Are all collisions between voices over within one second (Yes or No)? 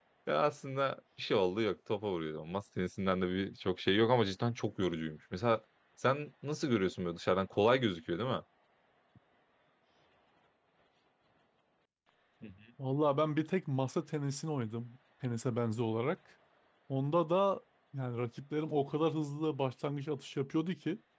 Yes